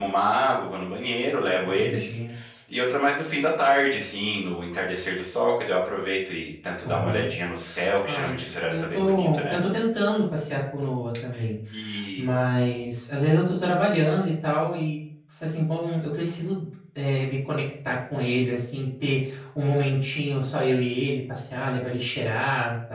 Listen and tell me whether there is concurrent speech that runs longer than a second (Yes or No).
Yes